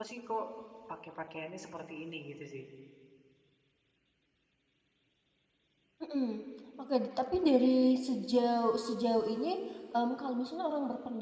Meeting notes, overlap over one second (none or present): none